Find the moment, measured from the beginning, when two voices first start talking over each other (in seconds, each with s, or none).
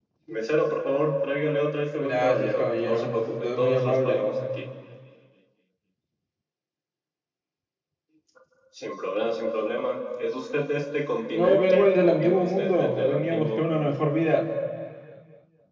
2.0 s